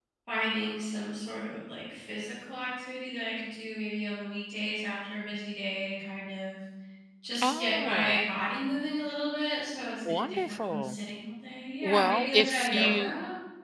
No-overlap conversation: No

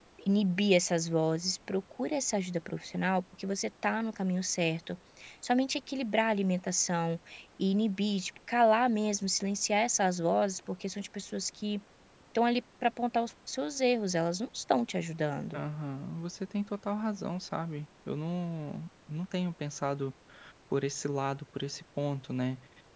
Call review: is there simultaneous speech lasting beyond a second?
No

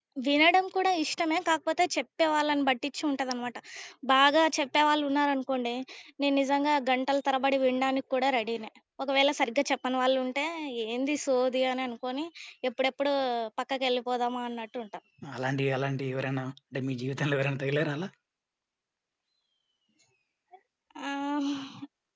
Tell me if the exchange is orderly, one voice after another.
Yes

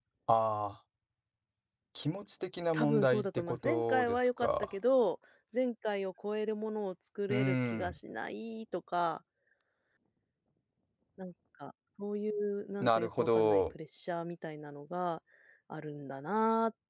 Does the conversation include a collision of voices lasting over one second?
Yes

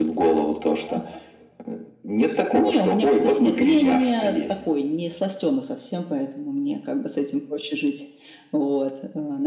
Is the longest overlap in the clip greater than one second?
Yes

